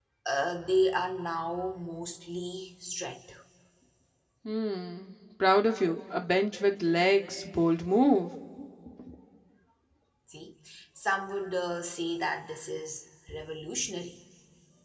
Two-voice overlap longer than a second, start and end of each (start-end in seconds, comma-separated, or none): none